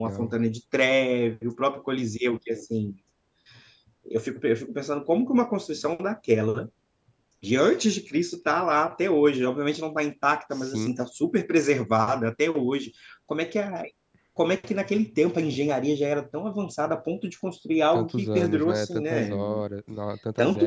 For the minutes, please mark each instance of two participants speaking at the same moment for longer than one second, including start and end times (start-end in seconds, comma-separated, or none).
17.9-19.4